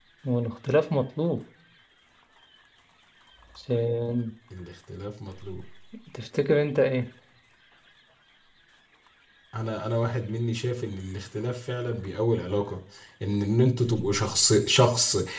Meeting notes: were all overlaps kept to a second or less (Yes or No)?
Yes